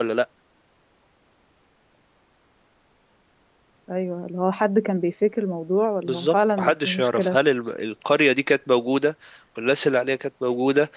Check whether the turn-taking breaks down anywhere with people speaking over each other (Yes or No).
Yes